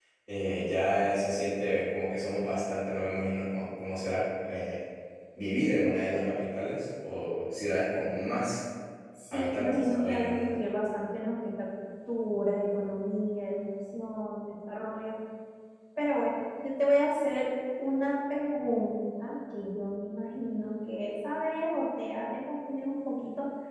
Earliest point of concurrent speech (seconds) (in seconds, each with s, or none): 9.3 s